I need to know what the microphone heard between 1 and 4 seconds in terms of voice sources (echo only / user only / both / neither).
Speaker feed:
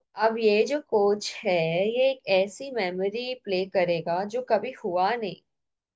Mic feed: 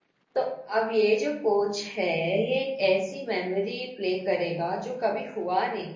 echo only